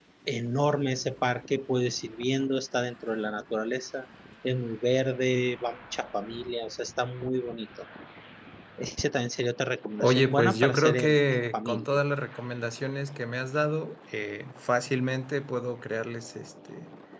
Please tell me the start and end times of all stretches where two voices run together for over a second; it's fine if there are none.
10.0-12.0

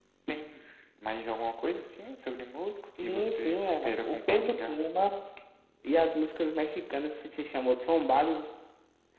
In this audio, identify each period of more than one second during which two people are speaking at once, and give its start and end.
3.0-4.8

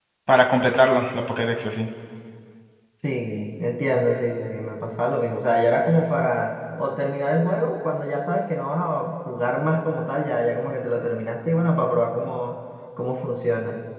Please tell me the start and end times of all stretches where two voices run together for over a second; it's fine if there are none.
none

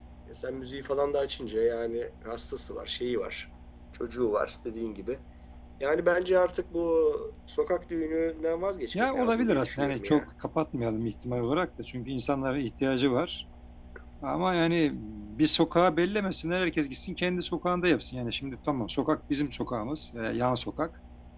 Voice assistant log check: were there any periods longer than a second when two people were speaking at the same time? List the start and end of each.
8.9-10.3

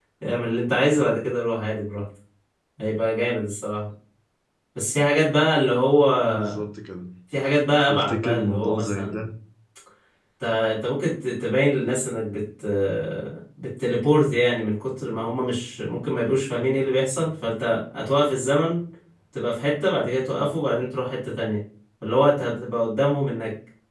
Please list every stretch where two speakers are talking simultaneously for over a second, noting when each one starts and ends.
7.9-9.2

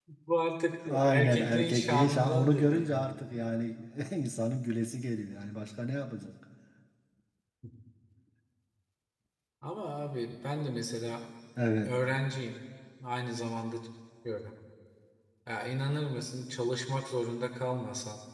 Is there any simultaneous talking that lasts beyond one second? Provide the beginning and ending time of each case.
1.1-3.2

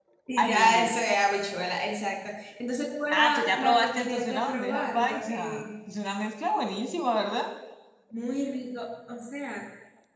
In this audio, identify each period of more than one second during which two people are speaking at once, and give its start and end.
3.1-5.7

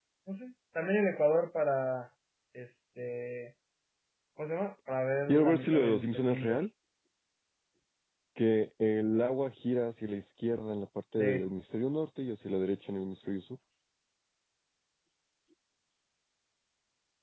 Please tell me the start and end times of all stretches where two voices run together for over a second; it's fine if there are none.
5.3-6.6

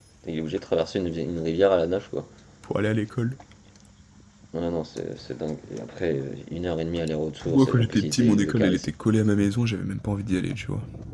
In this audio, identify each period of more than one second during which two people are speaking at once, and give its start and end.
7.5-8.9

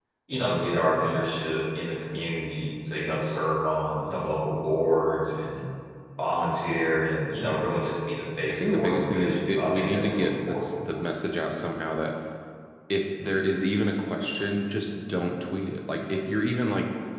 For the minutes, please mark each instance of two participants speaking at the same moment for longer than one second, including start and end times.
8.5-10.7

